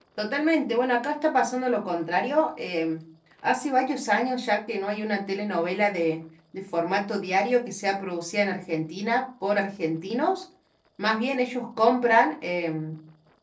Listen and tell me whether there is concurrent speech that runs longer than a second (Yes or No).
No